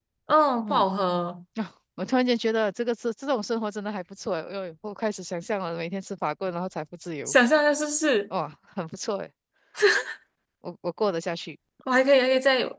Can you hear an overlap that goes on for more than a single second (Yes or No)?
No